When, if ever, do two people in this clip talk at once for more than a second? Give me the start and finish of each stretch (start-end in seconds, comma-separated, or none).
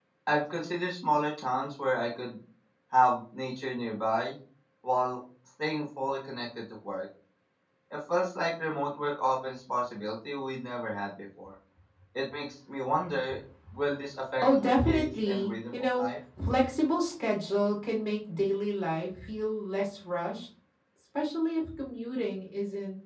14.4-16.0